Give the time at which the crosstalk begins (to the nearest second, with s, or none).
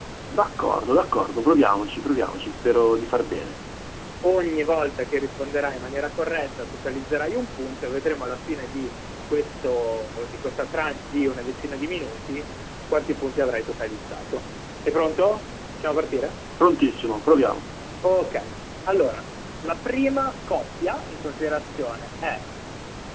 none